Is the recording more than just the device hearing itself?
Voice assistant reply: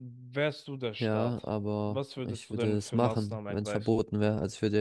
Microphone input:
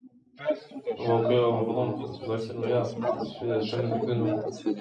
Yes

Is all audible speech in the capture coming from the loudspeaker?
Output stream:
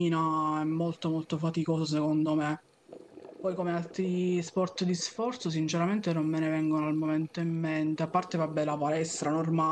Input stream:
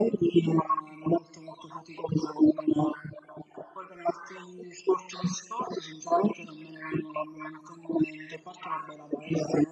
Yes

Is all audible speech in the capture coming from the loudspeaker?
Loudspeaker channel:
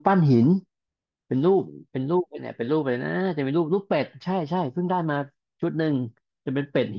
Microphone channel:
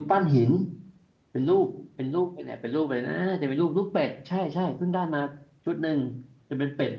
Yes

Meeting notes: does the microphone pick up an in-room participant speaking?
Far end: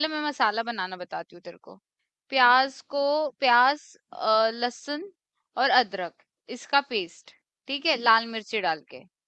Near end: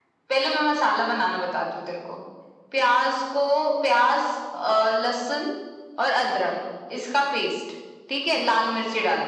No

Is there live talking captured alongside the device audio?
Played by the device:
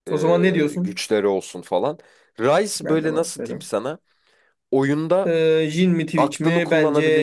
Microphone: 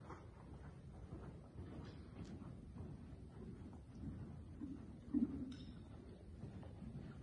No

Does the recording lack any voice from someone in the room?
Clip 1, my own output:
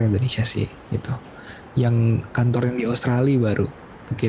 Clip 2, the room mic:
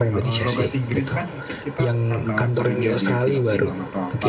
No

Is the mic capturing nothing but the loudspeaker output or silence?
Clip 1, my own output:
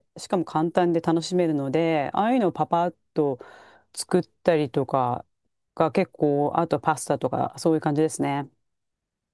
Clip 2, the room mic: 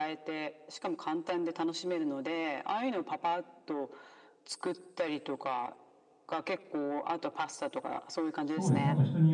No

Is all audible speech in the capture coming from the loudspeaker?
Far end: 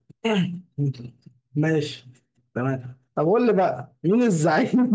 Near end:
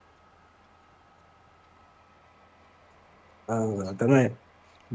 No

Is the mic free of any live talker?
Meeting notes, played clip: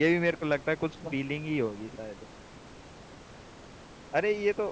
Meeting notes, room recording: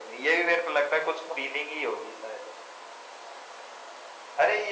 Yes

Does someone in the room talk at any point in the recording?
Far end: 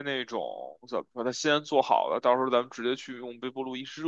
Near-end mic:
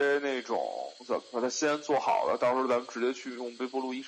No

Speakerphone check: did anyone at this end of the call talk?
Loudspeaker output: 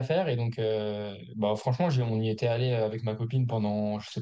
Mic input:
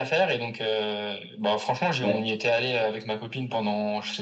Yes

